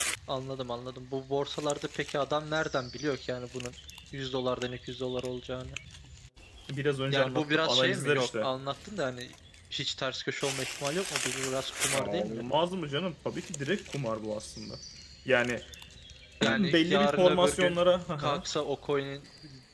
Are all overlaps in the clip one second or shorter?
No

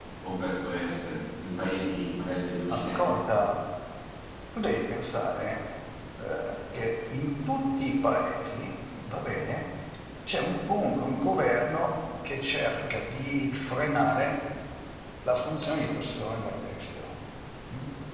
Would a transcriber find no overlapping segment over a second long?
Yes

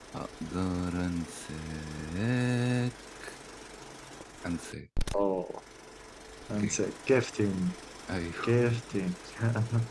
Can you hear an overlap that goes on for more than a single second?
No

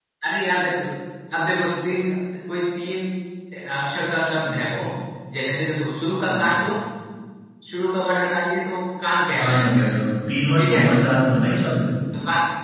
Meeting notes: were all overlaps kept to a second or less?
Yes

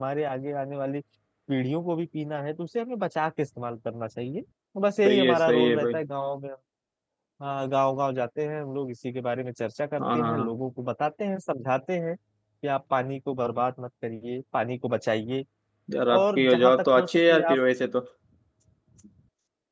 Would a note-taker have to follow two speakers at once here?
Yes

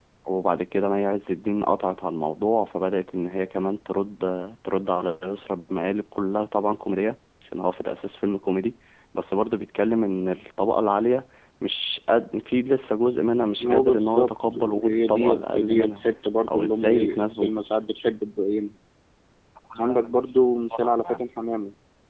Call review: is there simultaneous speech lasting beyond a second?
Yes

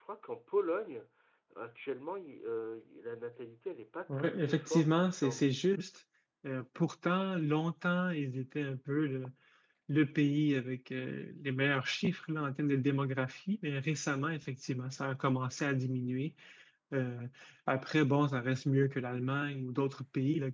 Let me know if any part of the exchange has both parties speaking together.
Yes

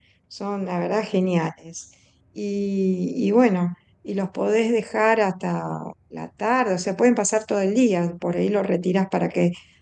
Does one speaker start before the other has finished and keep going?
No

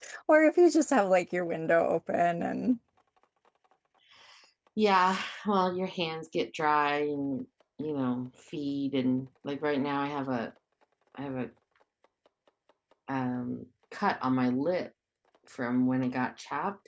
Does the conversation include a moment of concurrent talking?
No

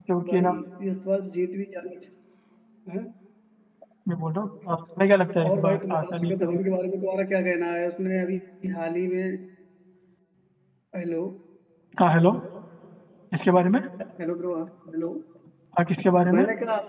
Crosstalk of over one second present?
Yes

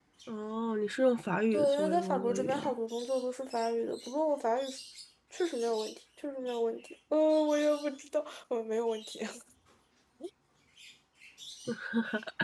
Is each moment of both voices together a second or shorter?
No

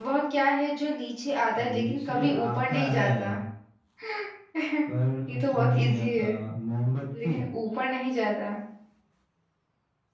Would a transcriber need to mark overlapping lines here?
Yes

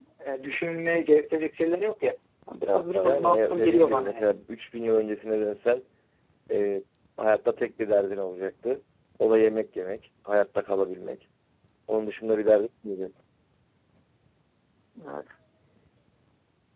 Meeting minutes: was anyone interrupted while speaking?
Yes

